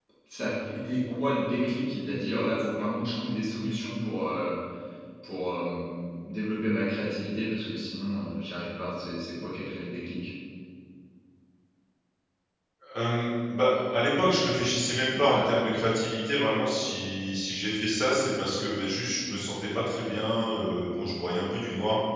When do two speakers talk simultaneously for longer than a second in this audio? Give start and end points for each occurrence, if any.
none

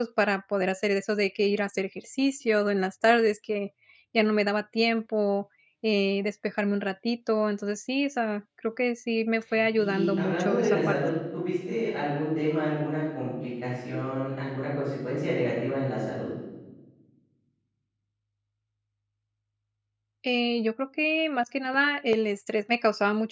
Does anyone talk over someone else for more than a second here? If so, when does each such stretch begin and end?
9.8-11.0

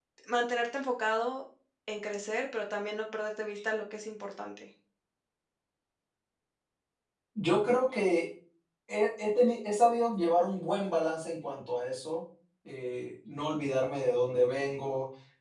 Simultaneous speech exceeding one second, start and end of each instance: none

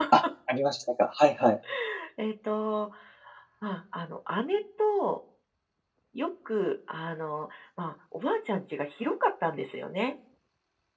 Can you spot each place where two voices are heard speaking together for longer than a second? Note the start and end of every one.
none

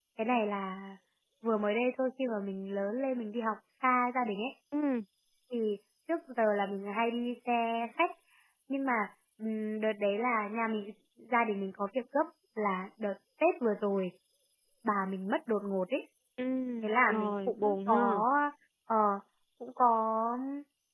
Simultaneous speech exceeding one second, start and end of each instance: 16.8-18.2

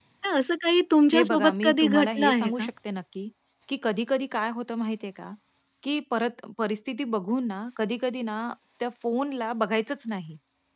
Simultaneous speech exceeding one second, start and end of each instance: 1.1-2.7

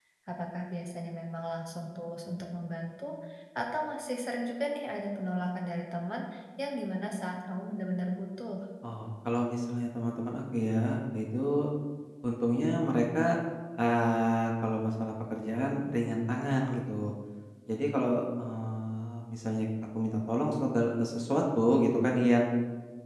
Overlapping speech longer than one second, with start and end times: none

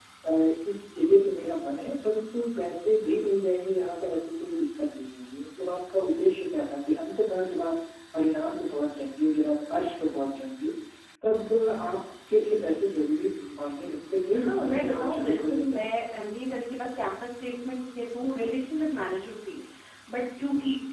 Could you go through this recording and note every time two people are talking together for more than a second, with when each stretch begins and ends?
14.3-15.8

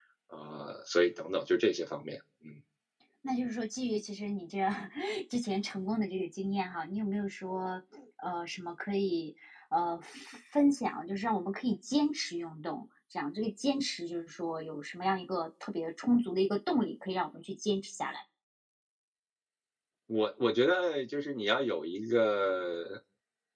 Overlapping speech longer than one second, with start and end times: none

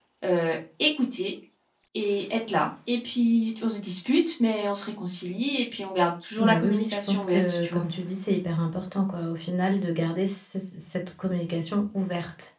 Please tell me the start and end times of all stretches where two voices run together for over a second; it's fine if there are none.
6.4-7.8

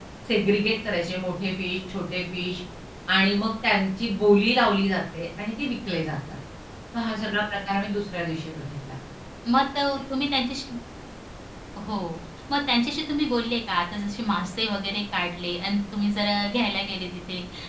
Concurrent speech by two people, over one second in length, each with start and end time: none

